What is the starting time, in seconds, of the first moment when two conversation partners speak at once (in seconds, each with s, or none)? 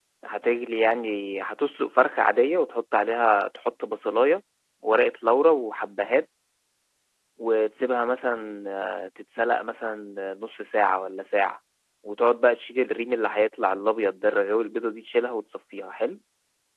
none